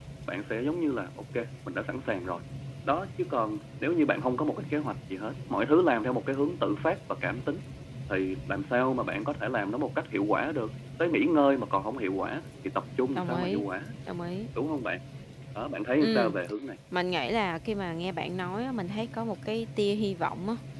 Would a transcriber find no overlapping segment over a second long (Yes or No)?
Yes